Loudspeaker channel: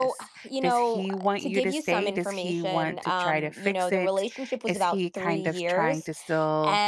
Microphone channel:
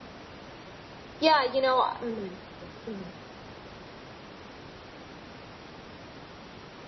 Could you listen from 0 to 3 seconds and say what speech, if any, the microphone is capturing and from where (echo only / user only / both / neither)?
user only